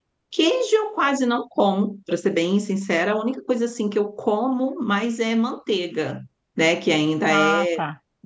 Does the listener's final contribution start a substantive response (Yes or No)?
No